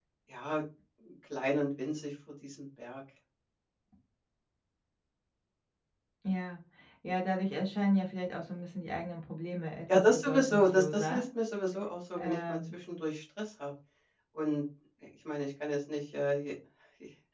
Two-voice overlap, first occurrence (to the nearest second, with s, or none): 10 s